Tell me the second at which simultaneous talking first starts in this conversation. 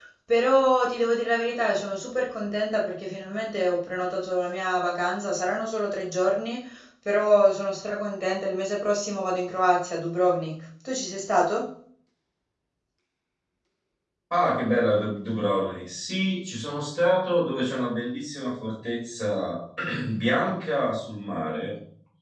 none

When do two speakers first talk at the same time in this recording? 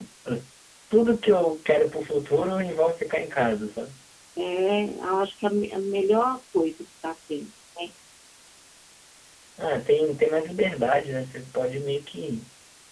none

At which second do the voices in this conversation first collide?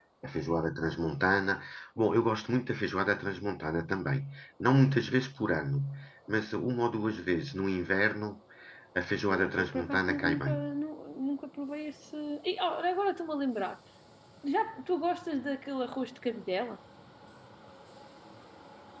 9 s

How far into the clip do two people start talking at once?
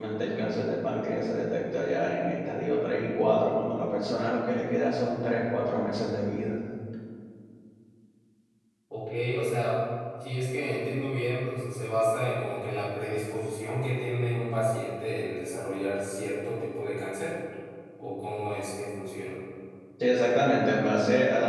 none

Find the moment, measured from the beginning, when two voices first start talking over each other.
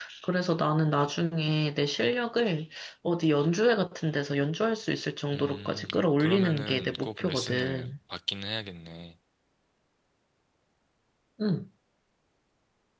5 s

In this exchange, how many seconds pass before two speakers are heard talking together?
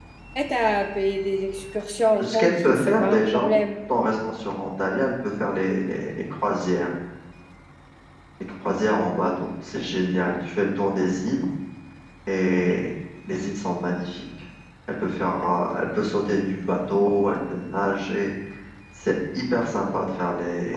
2 s

